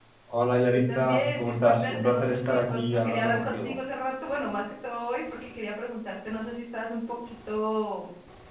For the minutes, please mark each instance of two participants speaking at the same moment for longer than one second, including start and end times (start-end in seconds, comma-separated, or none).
0.9-3.8